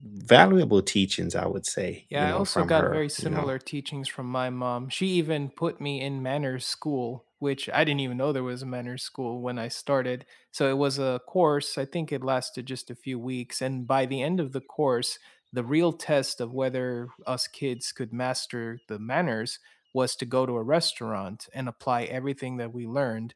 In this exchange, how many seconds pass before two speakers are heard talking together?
2.1 s

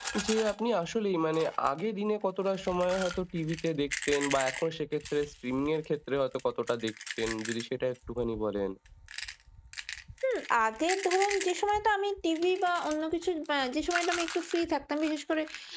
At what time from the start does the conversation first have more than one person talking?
none

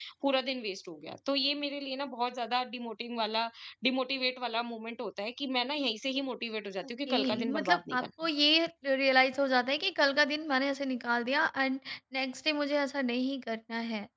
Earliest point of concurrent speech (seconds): 7.1 s

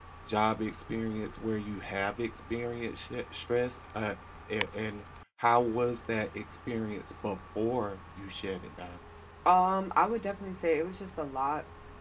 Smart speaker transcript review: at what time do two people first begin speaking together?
none

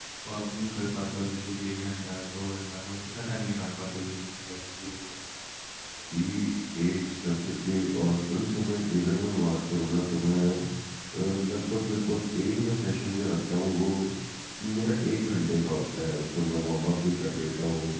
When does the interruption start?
none

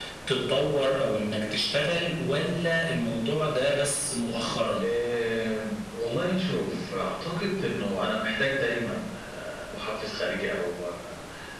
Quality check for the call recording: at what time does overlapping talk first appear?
none

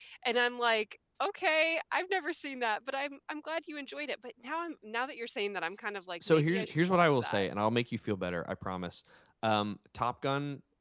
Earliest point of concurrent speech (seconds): 6.2 s

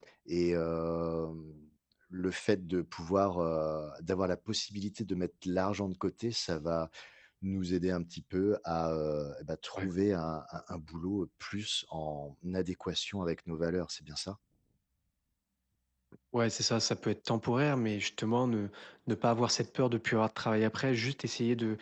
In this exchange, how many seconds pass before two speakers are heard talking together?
none

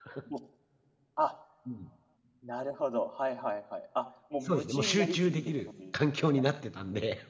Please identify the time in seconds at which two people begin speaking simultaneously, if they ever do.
4.4 s

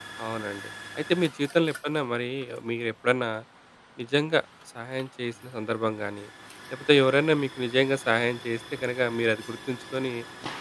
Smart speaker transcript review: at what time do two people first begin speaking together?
none

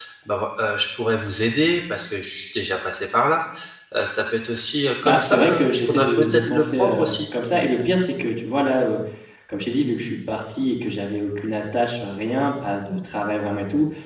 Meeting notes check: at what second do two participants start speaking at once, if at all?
5.0 s

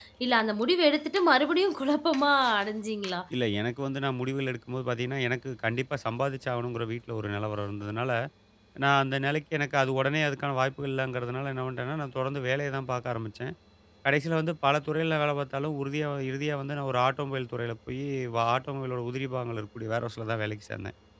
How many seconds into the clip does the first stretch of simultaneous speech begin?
none

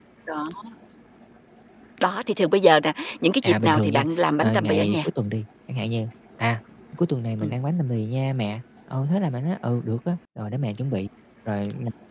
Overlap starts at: 3.4 s

